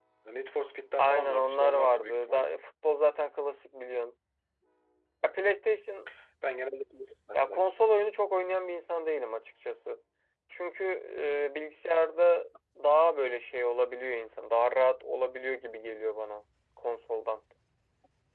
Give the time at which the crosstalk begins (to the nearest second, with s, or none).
1 s